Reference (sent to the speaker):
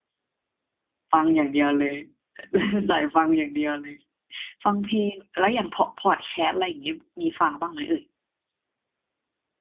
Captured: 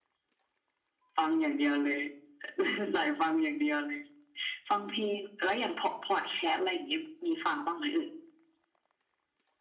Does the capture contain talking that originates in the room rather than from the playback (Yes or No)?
No